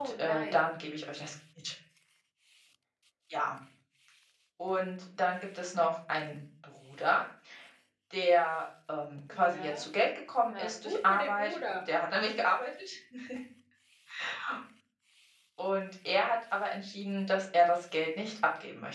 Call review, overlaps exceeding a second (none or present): present